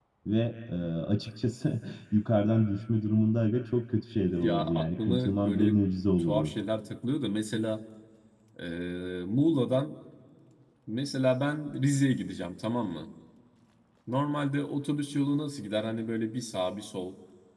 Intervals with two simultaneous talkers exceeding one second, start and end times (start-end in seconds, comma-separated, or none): 4.4-5.8